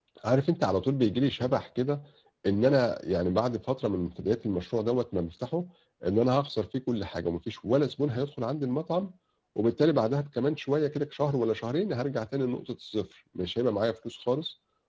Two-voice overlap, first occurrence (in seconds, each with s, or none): none